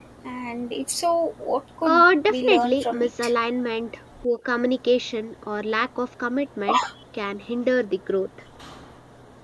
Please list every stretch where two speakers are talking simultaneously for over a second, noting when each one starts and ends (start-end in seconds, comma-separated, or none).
1.8-3.3